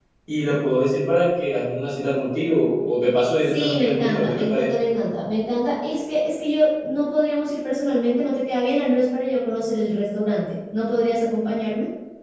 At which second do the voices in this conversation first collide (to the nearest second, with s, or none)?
3 s